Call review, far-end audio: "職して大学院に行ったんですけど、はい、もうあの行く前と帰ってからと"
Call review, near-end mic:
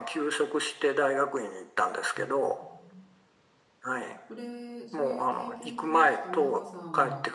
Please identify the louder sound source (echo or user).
echo